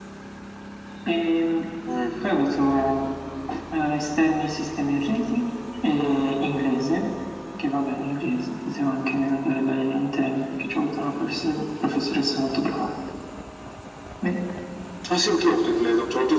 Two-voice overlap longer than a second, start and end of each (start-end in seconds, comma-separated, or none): none